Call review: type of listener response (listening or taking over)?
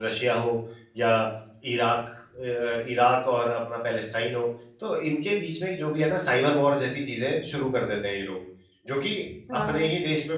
listening